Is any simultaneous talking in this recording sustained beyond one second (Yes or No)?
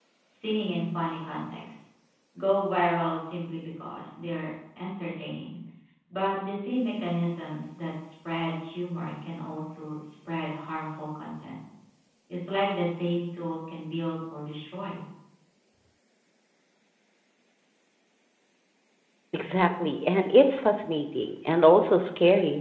No